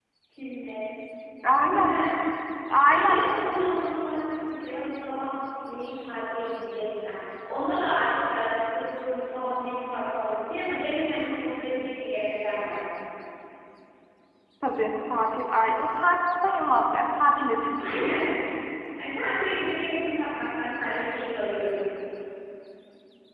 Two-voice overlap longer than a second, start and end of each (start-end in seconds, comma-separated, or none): none